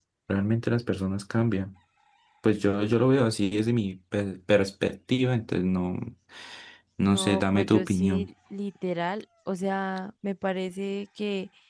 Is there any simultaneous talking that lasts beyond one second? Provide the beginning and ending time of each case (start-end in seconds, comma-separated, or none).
7.0-8.3